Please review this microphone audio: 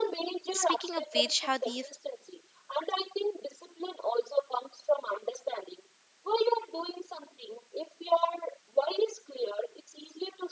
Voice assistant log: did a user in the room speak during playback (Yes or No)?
Yes